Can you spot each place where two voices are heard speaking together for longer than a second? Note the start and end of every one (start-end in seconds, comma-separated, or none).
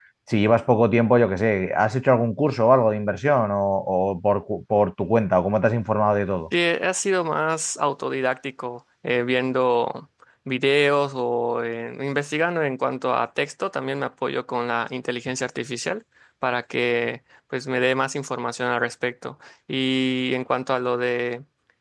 none